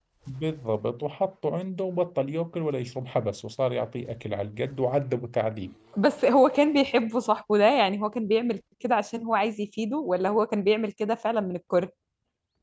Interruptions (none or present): none